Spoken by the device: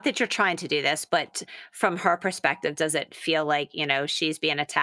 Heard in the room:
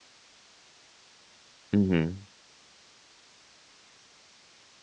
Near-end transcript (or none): Mhm.